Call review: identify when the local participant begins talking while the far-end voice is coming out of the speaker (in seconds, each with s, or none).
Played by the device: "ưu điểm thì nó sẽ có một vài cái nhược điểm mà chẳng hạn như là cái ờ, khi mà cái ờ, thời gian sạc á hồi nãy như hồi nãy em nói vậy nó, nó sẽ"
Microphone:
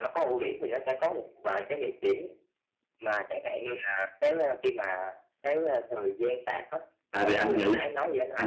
7.1 s